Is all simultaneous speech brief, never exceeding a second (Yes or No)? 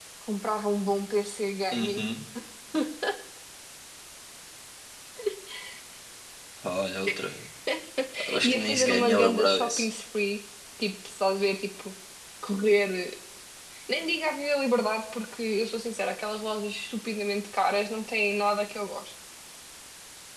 No